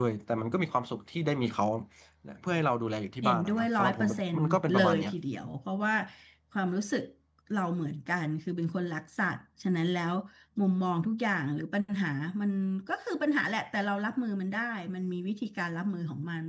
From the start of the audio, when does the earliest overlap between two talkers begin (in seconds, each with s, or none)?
3.2 s